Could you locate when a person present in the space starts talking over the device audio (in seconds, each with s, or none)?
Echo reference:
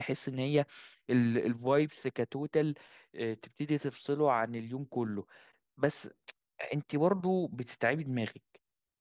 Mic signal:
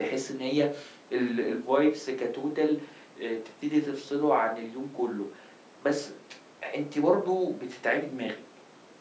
none